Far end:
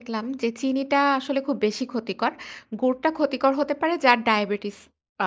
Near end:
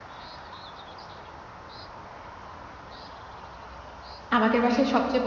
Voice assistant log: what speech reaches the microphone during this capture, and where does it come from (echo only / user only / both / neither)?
user only